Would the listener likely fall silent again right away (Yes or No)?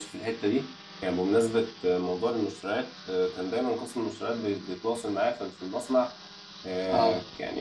Yes